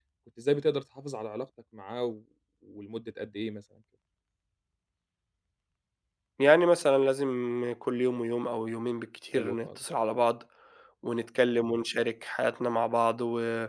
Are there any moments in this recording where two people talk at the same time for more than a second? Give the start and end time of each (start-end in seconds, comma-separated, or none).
none